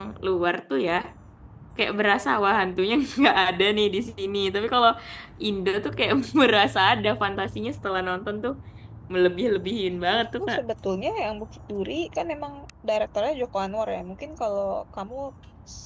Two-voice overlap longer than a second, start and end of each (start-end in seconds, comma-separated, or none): none